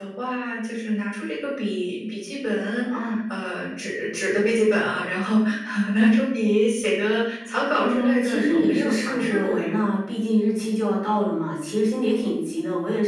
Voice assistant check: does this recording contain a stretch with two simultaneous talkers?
Yes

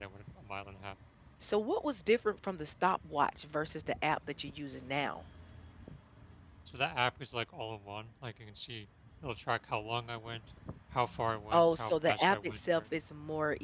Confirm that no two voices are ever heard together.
No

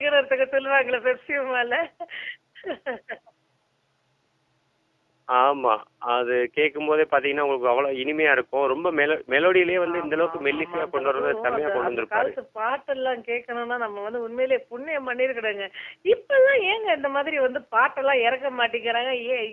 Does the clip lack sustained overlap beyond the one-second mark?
No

